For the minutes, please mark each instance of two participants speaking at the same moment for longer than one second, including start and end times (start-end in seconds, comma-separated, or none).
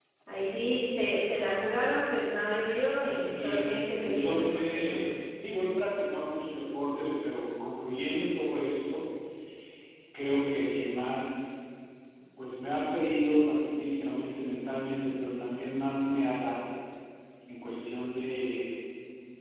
3.0-5.0